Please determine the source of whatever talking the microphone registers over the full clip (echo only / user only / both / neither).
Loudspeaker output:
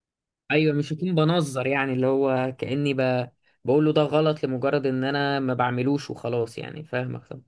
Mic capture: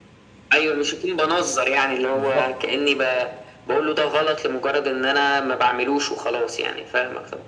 both